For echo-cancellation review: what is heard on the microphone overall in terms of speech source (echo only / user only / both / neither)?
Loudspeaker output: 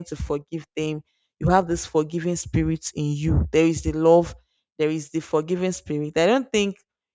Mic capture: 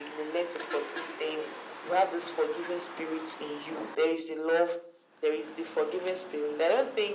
echo only